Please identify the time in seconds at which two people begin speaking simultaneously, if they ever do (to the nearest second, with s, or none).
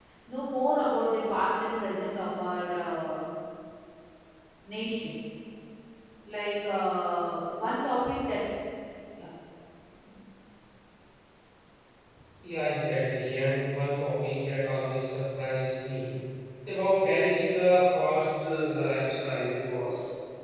none